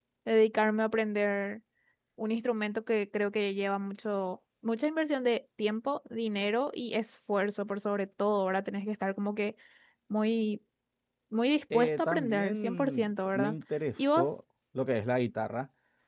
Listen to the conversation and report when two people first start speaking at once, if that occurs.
11.7 s

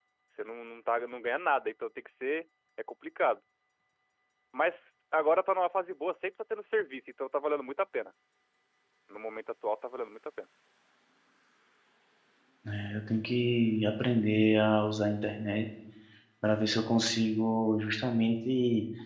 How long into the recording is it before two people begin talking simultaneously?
none

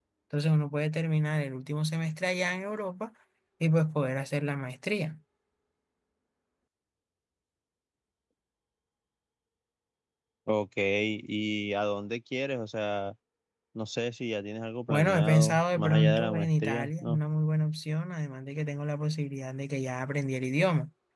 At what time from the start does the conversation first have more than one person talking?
14.9 s

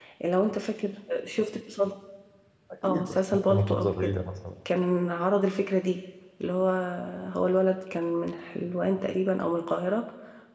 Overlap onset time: 2.8 s

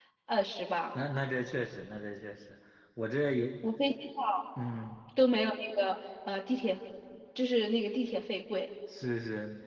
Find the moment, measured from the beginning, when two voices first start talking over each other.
none

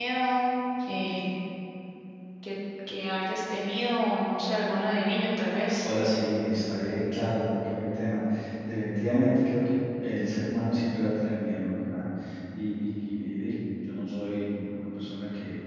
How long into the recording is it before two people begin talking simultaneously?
none

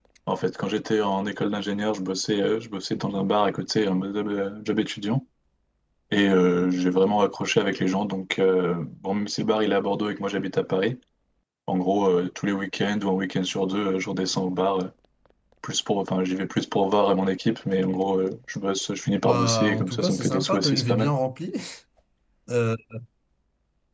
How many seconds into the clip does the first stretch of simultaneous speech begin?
19.2 s

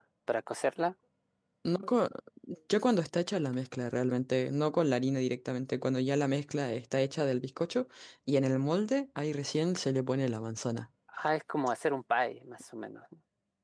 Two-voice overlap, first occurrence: none

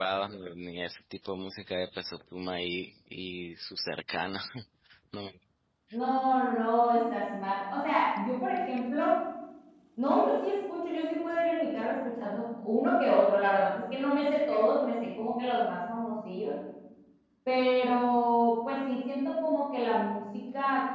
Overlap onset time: none

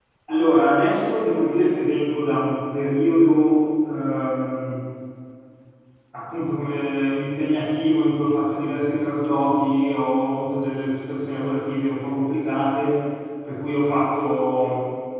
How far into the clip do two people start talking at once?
none

